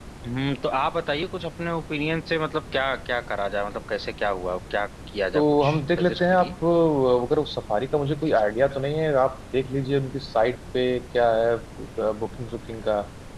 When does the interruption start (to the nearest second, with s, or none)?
5 s